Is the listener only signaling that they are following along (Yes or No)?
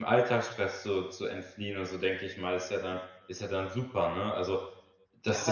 No